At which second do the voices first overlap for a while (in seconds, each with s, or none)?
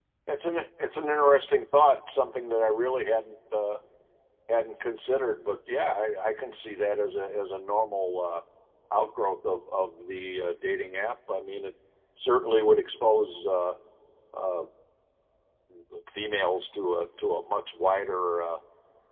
none